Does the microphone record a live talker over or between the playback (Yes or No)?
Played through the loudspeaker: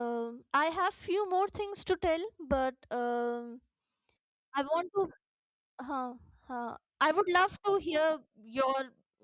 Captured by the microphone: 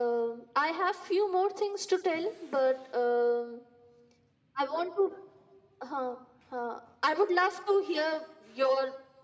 No